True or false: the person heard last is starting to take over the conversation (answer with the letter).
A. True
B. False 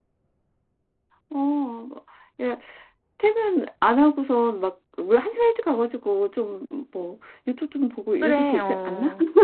A